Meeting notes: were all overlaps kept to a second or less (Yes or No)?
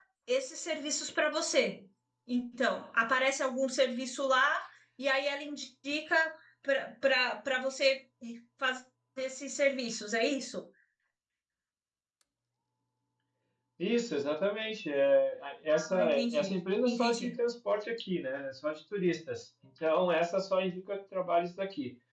No